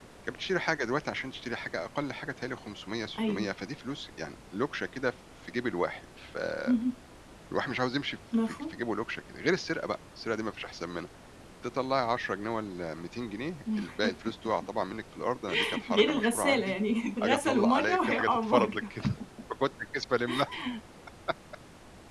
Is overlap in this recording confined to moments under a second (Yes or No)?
No